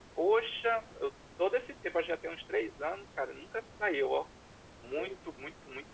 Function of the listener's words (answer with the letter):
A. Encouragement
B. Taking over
A